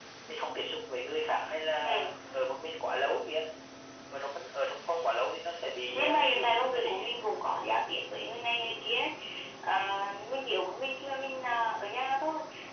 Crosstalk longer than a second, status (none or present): present